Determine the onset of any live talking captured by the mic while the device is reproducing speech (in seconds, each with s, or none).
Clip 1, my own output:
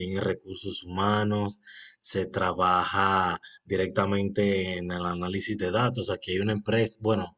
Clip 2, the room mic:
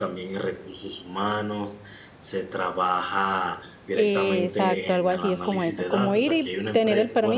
3.9 s